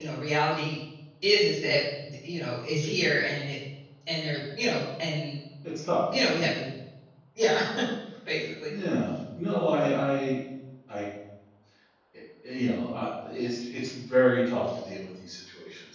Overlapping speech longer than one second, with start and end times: none

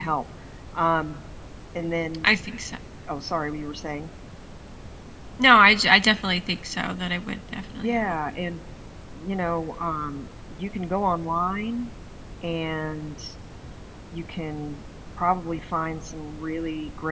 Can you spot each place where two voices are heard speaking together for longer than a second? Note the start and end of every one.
none

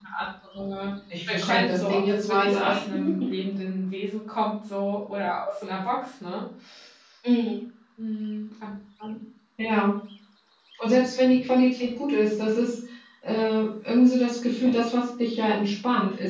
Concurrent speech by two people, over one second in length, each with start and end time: 1.3-2.7

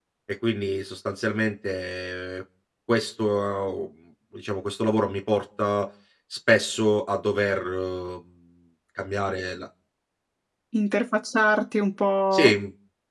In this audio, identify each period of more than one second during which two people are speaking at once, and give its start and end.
none

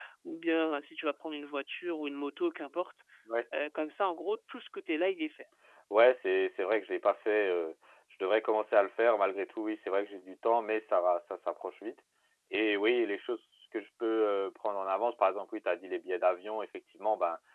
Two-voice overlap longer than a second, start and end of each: none

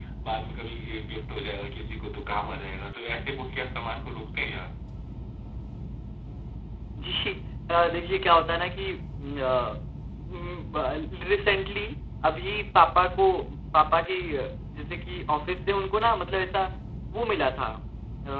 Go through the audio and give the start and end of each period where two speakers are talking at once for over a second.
none

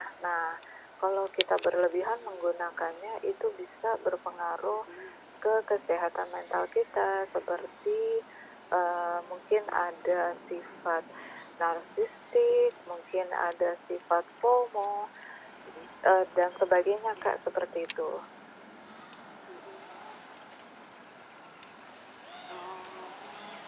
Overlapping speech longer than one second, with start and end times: none

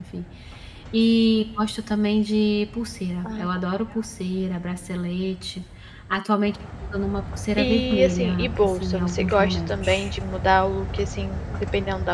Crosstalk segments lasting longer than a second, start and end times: 7.6-10.1

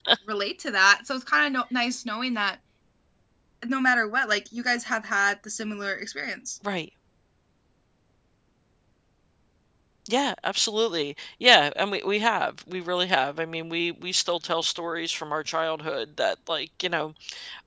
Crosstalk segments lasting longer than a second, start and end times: none

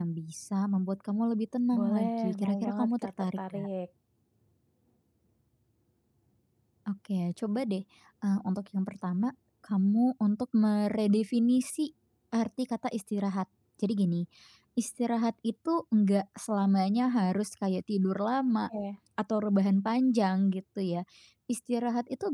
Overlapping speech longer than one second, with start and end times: 1.8-3.7

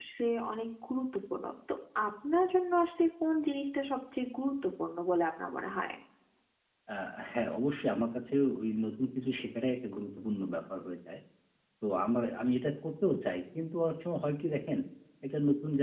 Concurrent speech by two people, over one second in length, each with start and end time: none

